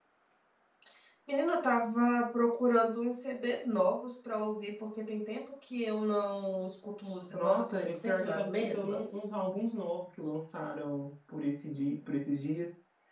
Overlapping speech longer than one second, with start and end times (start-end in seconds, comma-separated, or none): 7.3-9.2